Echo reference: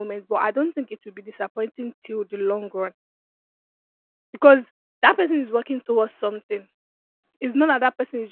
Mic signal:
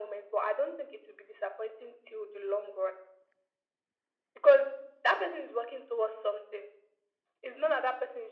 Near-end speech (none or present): none